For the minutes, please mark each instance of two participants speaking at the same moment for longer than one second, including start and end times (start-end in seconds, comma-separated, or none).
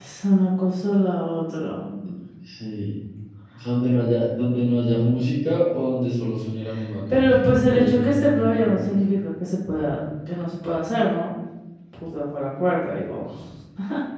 7.1-9.0